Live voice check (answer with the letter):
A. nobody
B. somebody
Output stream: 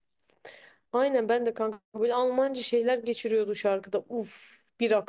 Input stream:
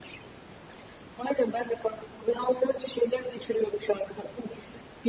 A